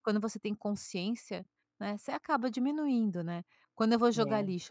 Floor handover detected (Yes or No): No